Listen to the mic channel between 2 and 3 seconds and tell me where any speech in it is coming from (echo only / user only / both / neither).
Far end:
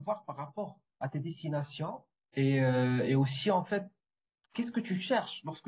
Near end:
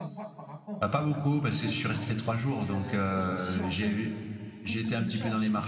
both